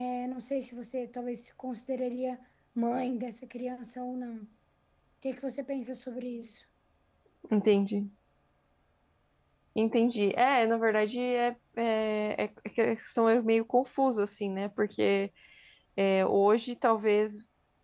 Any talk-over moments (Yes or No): No